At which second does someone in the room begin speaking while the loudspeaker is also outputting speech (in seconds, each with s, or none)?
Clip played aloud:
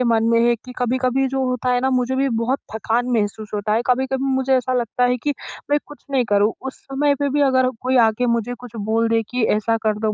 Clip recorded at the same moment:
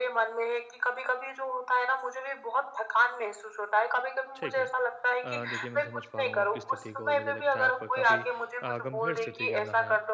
4.4 s